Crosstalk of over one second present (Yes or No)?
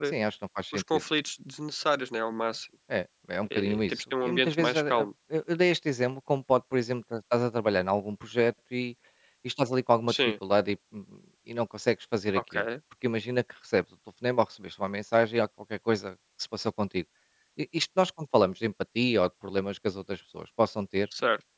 Yes